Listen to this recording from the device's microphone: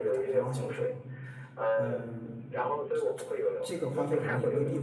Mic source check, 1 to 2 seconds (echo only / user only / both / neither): both